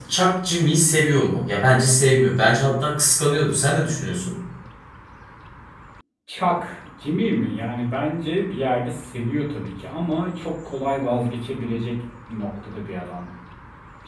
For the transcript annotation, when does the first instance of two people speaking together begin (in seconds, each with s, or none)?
none